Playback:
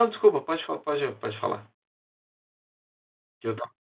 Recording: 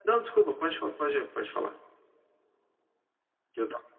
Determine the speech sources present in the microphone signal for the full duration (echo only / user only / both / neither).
echo only